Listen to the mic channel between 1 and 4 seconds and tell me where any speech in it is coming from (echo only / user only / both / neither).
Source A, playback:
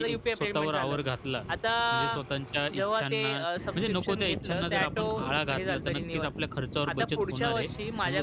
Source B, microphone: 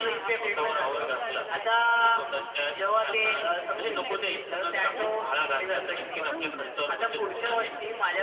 both